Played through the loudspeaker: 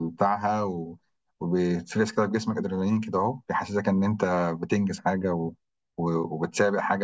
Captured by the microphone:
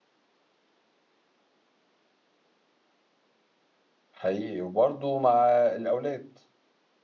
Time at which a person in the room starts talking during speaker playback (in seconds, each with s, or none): 4.1 s